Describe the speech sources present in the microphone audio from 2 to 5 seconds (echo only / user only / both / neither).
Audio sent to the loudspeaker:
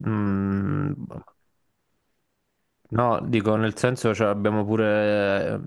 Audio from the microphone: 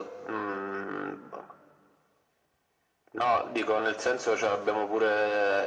echo only